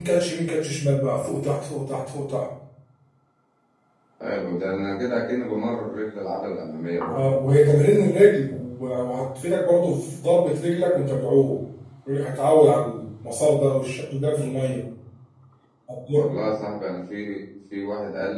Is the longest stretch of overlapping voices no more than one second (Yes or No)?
Yes